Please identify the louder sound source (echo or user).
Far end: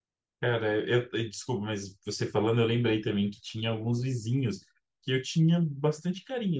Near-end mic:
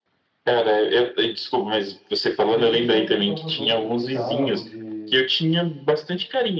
echo